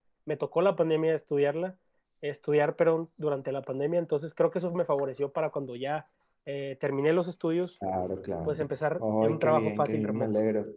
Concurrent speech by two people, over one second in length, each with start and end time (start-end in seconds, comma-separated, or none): 9.0-10.3